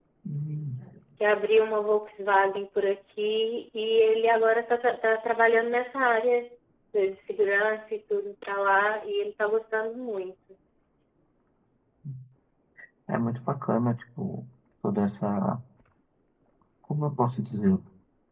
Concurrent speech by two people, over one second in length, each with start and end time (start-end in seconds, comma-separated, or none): none